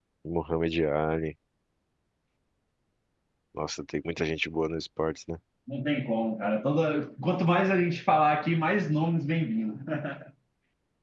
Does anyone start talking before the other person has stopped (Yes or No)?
No